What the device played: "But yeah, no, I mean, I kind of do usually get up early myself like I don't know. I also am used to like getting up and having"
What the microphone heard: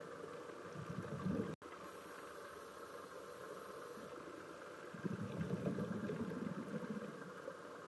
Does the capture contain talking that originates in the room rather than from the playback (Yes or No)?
No